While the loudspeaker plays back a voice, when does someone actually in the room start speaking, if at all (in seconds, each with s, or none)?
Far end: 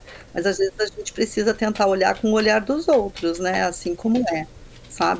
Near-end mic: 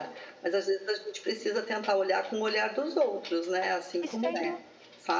4.0 s